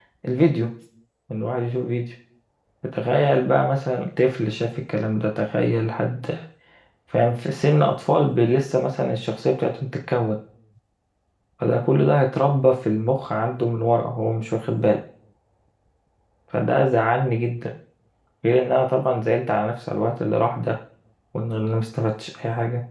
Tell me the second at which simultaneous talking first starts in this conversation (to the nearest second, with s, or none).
none